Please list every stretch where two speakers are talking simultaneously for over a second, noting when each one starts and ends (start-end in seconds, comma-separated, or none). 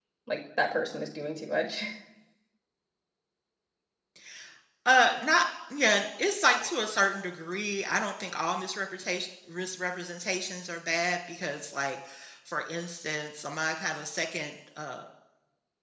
none